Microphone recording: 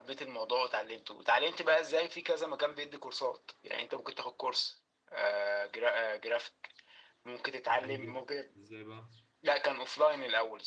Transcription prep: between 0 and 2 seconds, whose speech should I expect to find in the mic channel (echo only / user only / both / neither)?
echo only